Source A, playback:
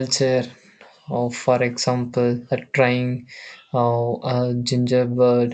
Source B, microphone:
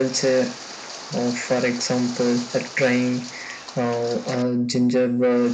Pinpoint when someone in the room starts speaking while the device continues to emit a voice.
none

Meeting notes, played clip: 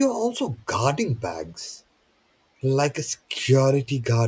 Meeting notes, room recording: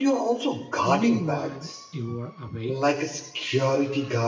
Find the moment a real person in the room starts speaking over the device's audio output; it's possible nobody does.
0.8 s

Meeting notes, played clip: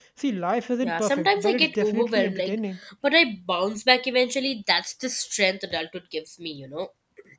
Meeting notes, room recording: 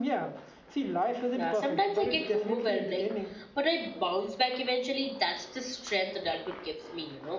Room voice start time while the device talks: none

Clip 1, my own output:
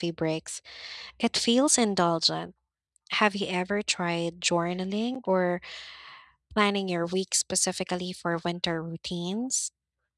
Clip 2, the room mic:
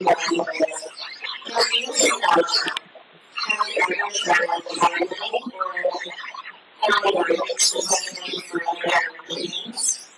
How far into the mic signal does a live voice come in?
none

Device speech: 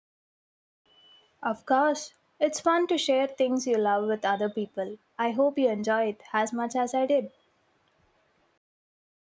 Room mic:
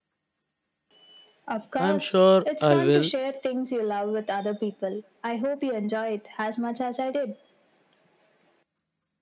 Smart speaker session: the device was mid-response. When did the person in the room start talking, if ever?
1.8 s

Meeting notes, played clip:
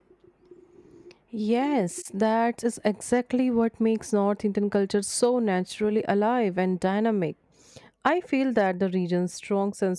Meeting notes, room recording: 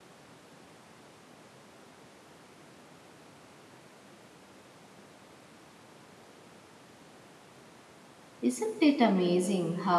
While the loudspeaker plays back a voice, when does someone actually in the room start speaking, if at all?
8.4 s

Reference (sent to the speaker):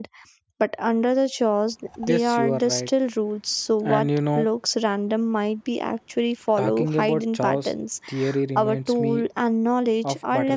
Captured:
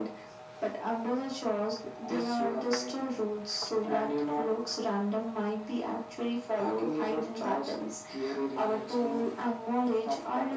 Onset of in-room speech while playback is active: none

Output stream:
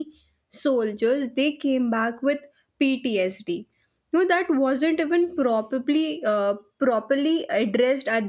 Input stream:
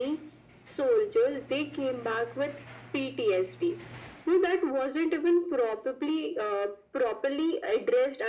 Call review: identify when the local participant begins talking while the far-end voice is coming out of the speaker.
none

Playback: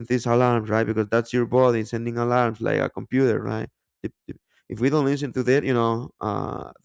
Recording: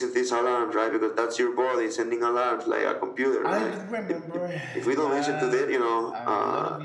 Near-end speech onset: 3.4 s

